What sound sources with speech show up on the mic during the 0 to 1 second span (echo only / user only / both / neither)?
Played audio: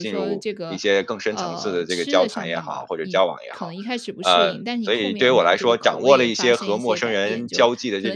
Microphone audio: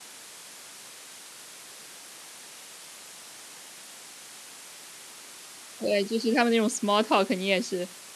neither